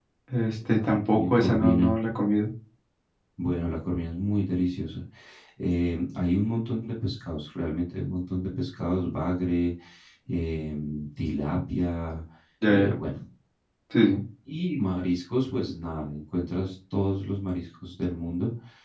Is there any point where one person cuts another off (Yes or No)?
Yes